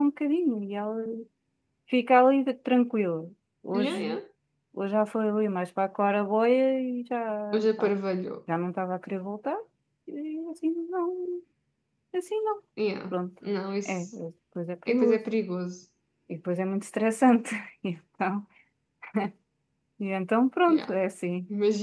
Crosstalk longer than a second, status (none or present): none